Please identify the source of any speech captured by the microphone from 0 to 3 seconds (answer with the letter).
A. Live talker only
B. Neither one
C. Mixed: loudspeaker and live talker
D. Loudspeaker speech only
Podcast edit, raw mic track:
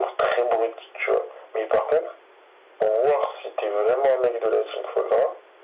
D